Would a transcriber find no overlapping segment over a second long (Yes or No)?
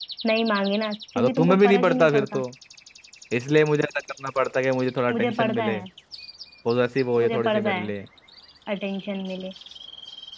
No